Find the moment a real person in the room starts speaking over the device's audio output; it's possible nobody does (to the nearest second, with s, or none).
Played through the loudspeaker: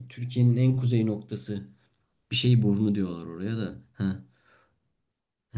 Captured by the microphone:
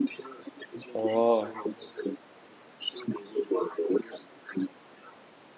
1 s